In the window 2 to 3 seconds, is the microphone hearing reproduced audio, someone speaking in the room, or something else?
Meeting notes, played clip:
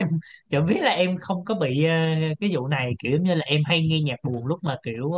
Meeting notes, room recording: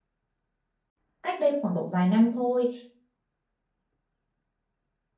user only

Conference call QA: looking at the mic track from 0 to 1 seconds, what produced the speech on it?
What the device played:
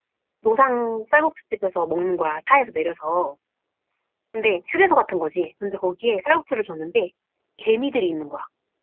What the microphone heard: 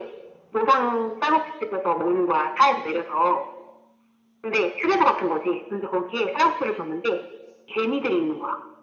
echo only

